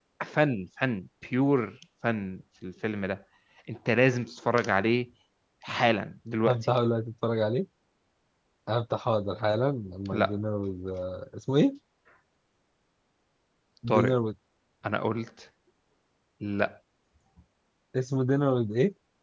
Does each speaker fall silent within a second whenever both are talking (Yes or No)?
Yes